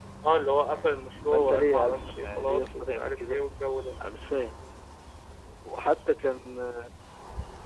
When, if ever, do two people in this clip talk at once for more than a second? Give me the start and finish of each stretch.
1.3-3.4

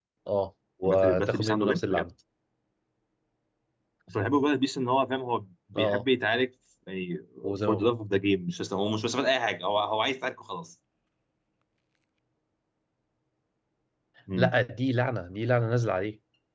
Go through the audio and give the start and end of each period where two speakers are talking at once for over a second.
0.8-2.0

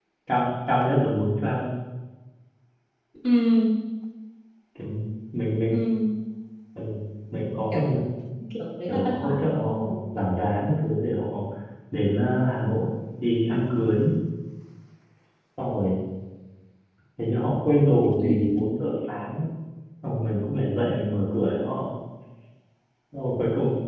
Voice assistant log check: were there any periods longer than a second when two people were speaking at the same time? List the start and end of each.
8.8-10.1

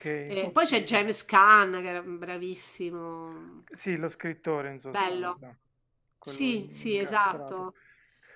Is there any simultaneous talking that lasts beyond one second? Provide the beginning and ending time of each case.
6.3-7.5

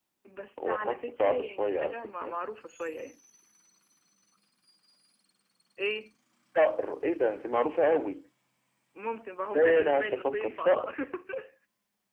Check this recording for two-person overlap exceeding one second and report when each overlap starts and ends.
0.6-2.4, 9.5-11.0

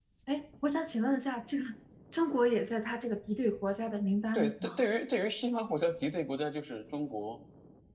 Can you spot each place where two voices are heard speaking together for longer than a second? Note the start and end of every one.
none

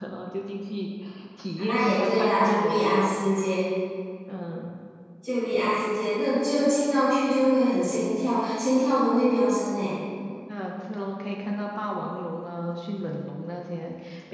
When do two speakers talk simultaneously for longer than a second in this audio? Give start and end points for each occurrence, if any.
1.6-3.0

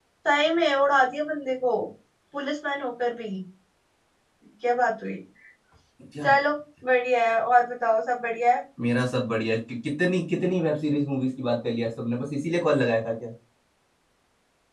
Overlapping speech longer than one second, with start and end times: none

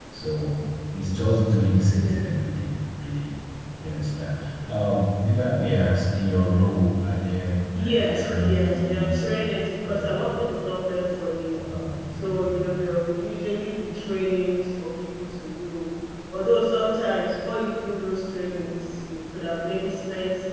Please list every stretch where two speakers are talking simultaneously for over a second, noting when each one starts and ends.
7.7-9.2

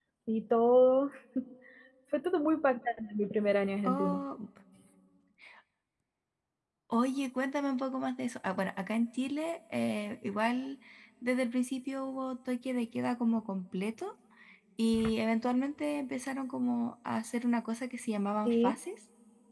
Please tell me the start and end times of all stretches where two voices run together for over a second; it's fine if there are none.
none

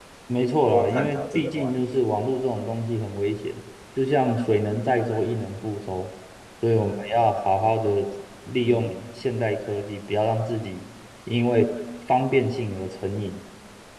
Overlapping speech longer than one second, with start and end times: 0.7-2.0

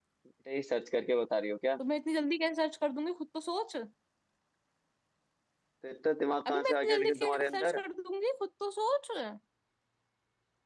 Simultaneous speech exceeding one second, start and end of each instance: 6.5-7.8

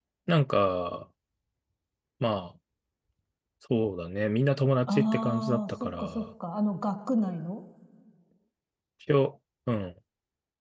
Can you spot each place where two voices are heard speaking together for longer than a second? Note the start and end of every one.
4.9-6.2

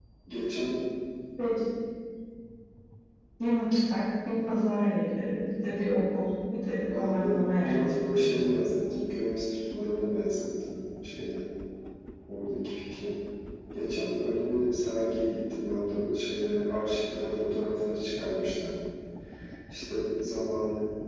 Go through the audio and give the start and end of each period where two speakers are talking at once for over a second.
6.9-8.3

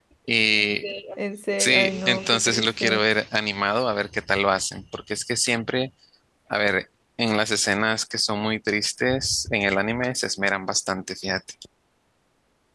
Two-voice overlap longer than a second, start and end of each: 1.6-3.0

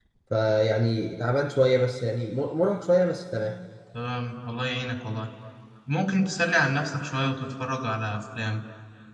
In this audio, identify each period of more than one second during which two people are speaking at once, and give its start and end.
none

